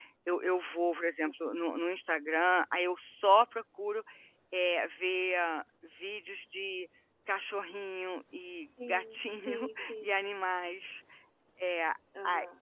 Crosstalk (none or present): present